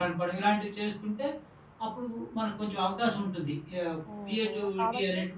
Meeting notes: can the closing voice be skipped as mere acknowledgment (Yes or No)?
No